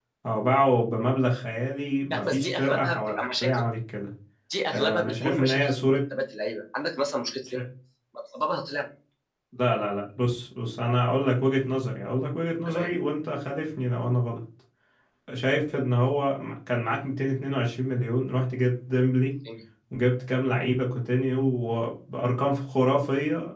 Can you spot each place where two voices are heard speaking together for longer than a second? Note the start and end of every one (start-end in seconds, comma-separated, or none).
2.1-3.6, 4.7-6.0